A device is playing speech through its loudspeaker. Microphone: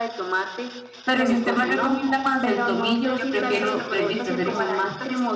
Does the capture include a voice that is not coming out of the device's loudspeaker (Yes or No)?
Yes